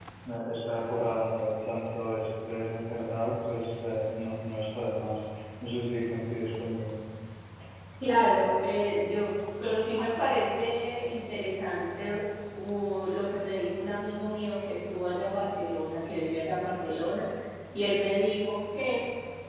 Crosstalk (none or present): none